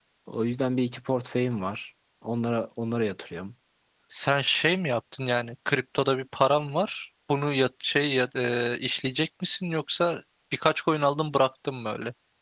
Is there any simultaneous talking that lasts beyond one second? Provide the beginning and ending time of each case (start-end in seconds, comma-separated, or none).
none